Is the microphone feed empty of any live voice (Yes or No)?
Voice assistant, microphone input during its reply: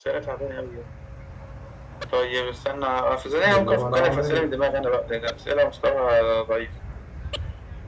No